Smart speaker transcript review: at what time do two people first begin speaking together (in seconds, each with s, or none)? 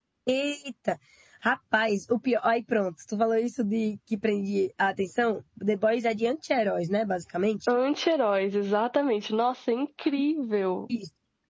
none